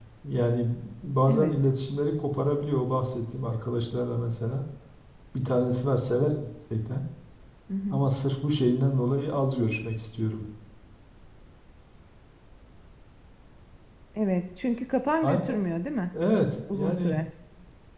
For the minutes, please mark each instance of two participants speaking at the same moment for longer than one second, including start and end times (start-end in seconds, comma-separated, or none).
none